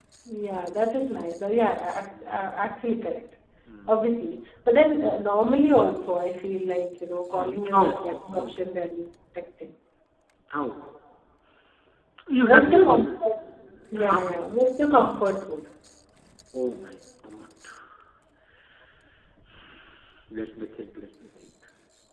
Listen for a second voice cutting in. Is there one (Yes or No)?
Yes